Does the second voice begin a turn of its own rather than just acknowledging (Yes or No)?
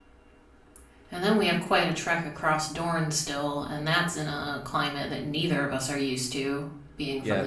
Yes